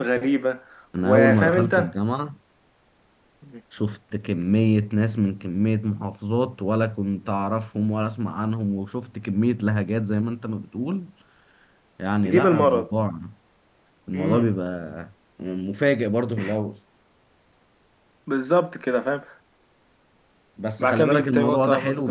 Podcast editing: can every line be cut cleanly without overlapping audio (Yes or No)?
No